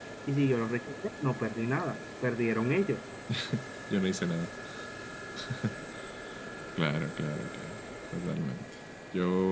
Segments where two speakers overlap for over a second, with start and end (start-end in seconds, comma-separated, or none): none